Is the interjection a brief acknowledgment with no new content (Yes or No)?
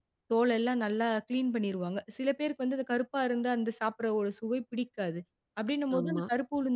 Yes